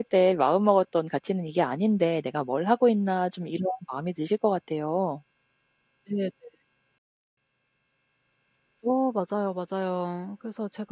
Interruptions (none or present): none